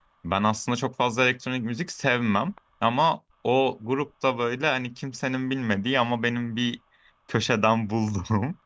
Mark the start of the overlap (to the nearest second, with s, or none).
none